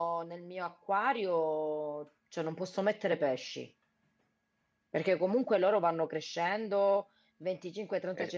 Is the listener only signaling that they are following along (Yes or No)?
Yes